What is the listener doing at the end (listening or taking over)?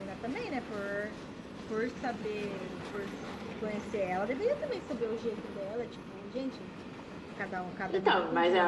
taking over